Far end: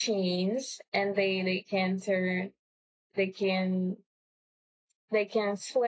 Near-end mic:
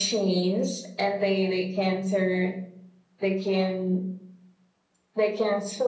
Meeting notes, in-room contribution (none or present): none